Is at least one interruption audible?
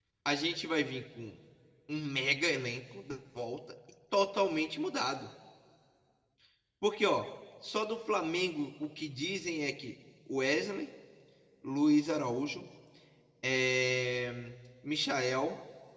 No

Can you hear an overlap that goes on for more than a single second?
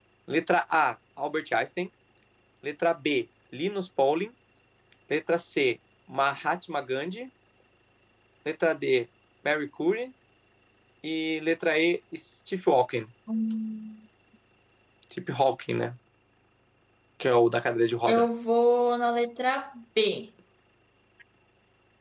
No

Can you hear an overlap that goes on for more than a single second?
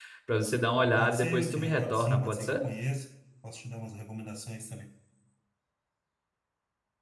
Yes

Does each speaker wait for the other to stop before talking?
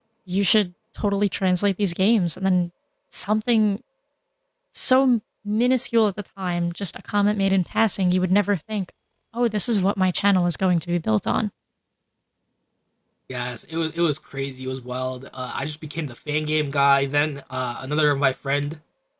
Yes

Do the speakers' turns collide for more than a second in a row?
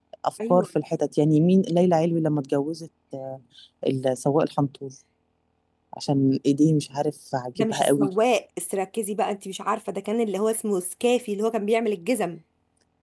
No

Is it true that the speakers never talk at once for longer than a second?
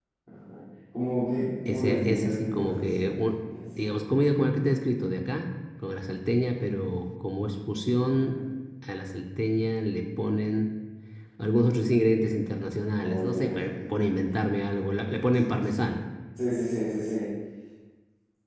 No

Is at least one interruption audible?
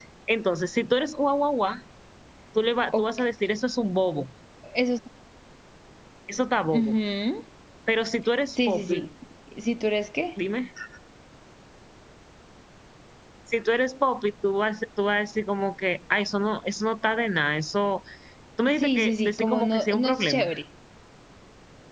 Yes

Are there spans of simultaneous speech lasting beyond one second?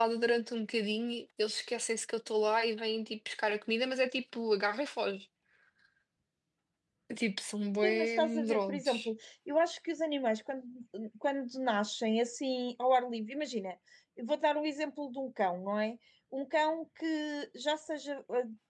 Yes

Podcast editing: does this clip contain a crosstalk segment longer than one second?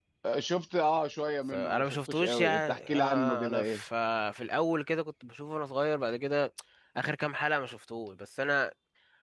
Yes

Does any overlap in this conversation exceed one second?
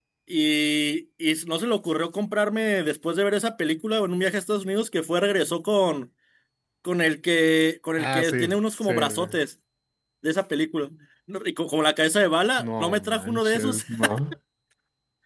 Yes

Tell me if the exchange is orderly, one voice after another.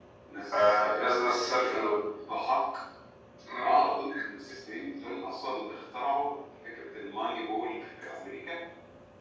No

